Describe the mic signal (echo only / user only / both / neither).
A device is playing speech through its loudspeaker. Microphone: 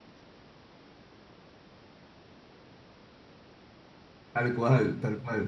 user only